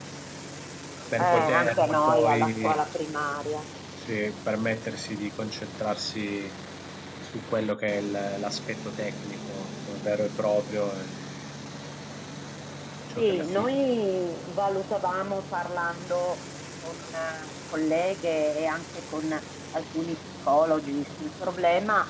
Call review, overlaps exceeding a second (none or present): present